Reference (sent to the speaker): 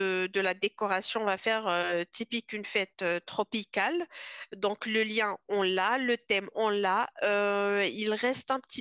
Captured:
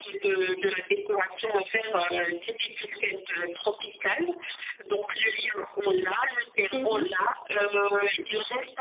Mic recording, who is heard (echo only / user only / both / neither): both